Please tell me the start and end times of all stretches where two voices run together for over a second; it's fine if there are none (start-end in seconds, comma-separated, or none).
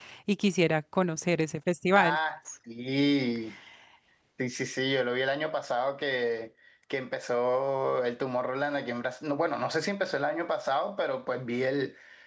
none